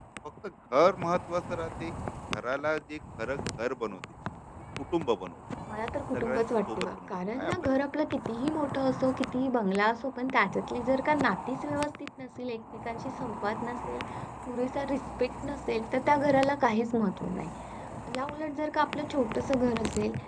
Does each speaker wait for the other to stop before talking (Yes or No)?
No